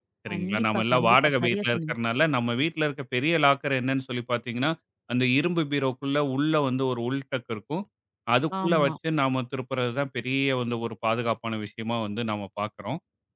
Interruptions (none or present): present